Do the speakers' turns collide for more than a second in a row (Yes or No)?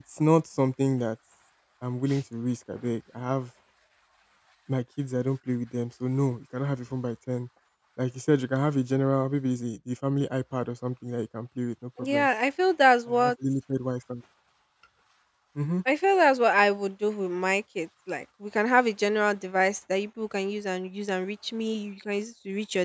No